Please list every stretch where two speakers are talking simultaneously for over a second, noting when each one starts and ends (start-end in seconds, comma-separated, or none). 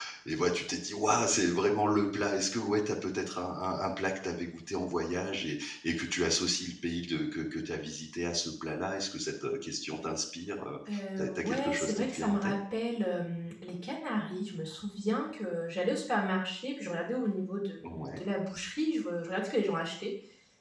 11.2-12.5